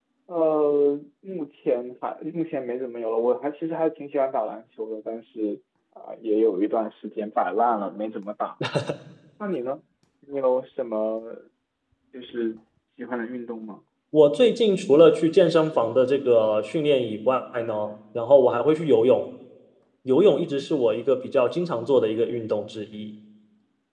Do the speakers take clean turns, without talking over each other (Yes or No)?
Yes